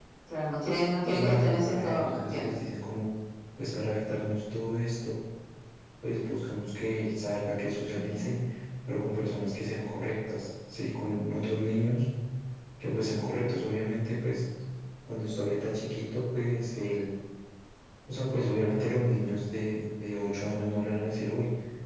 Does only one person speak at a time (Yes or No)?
No